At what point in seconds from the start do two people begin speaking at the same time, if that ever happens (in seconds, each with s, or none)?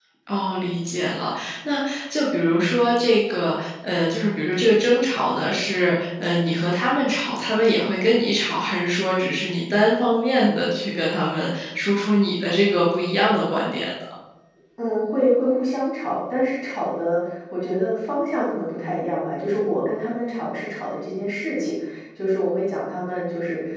none